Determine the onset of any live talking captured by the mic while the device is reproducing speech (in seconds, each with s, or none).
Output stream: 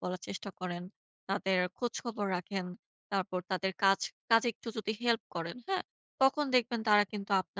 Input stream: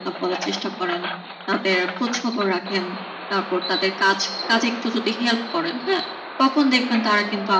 none